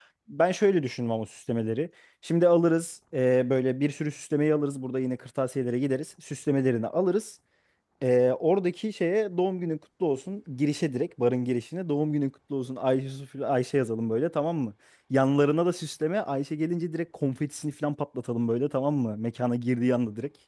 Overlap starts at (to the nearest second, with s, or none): none